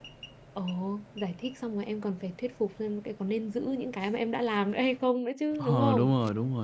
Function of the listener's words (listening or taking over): taking over